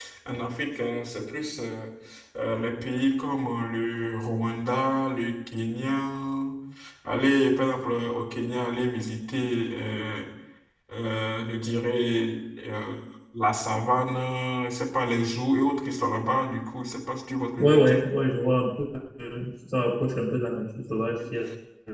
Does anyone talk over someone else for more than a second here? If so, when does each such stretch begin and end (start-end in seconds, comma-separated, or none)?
none